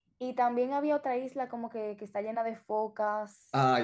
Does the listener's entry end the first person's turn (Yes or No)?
Yes